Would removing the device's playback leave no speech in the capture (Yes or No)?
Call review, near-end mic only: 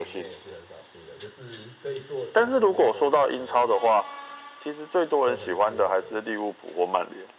No